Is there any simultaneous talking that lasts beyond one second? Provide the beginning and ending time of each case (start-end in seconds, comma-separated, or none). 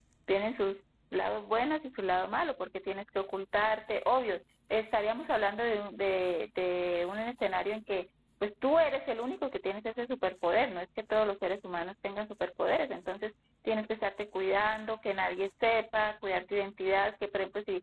none